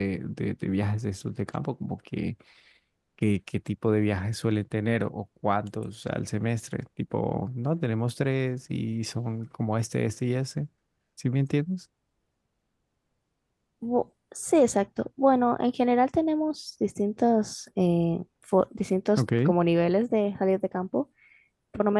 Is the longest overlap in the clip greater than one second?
No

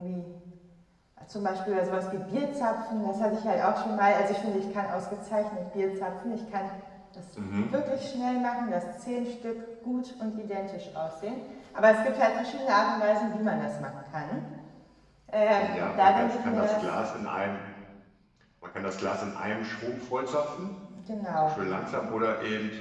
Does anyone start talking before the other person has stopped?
Yes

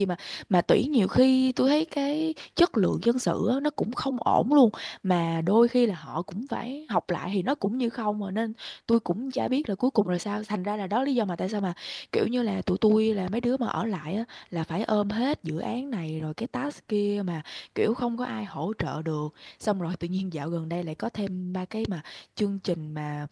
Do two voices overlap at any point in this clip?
No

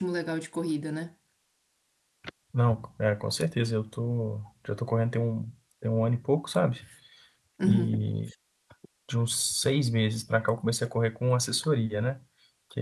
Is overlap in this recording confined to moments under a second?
Yes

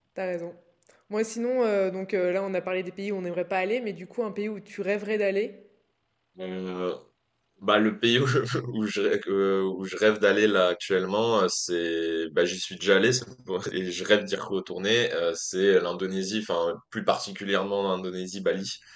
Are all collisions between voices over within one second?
Yes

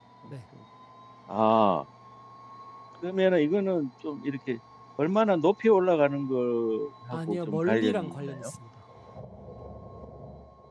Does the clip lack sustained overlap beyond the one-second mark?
No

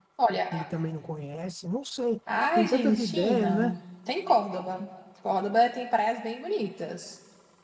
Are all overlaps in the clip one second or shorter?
No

